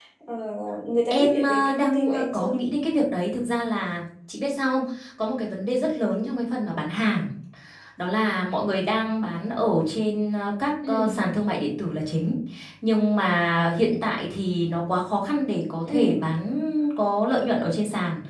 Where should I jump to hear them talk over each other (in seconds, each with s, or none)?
1.1 s